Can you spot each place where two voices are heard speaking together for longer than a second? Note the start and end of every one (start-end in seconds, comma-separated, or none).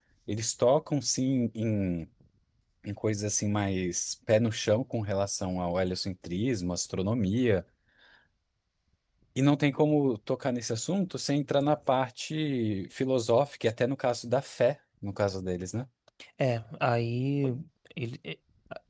none